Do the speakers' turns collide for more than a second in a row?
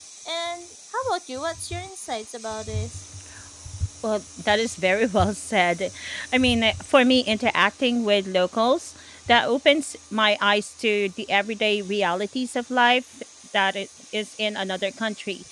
No

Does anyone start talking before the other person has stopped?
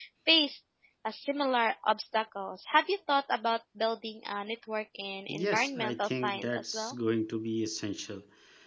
Yes, from 5.3 s

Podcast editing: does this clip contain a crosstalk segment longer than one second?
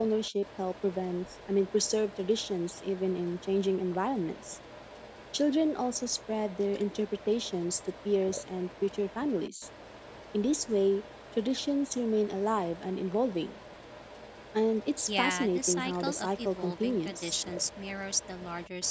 Yes, from 15.1 s

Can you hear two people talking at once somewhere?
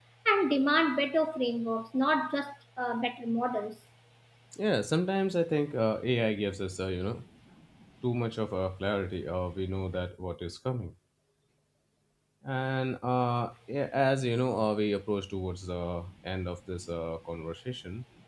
No

